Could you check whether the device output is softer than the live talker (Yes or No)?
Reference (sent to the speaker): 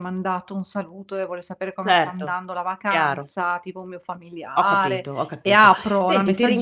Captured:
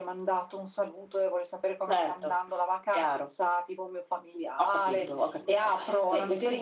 No